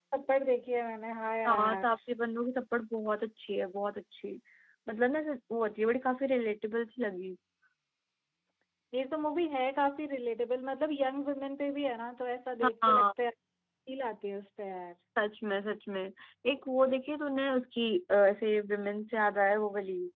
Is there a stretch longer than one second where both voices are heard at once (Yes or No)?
No